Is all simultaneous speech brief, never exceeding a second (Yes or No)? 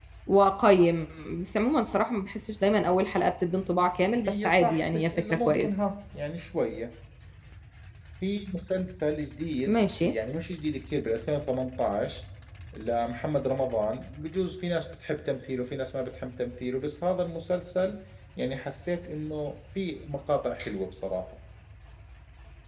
No